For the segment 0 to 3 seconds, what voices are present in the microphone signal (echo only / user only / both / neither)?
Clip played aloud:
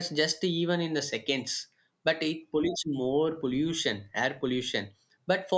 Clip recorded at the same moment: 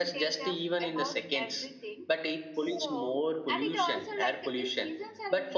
both